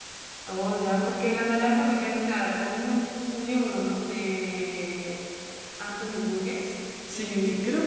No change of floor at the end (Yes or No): No